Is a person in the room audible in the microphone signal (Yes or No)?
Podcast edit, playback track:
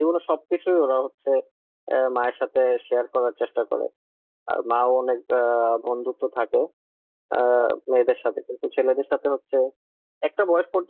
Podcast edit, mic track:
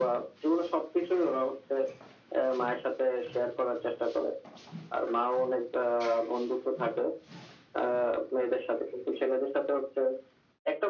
No